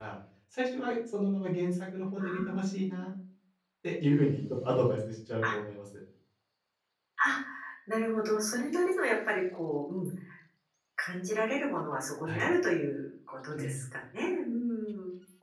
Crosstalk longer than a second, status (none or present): none